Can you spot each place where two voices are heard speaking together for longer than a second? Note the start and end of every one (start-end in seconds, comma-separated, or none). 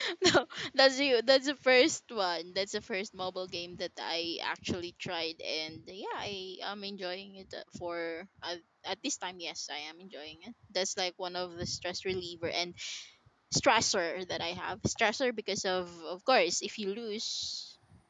none